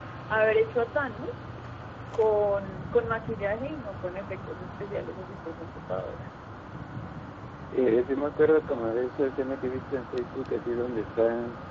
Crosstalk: none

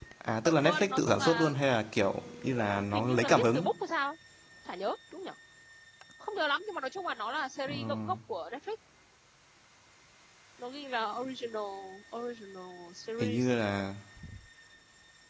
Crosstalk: present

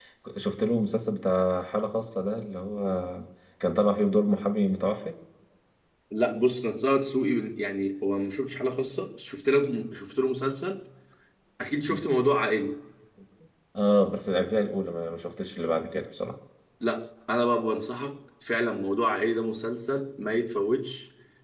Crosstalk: none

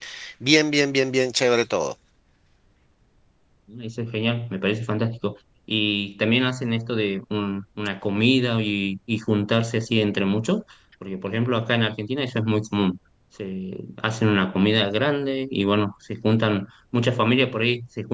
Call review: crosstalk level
none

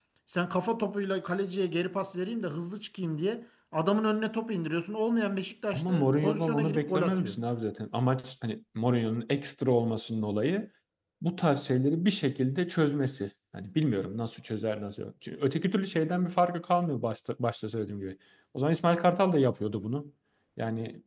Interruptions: present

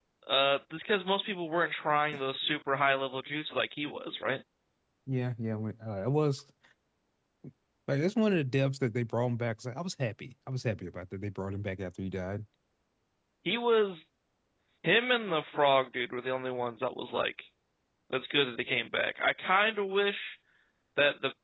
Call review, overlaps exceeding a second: none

